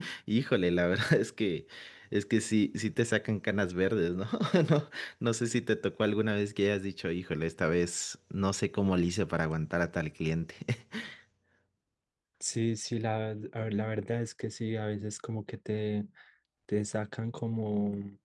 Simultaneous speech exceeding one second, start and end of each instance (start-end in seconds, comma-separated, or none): none